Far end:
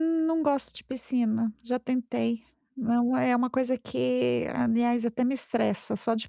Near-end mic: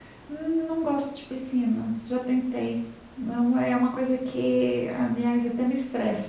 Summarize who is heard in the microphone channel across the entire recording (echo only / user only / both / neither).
echo only